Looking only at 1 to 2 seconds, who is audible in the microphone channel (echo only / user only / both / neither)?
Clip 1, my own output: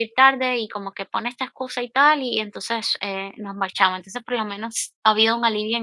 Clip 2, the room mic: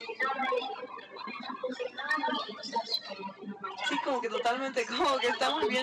echo only